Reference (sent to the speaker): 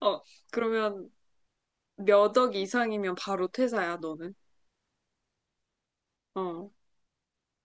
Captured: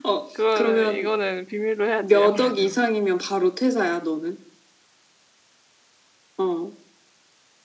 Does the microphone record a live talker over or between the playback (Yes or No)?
Yes